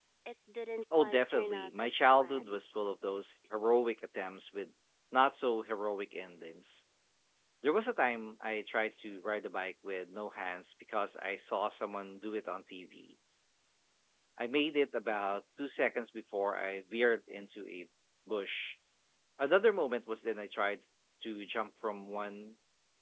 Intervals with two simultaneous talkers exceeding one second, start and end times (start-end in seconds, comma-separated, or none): 0.9-2.6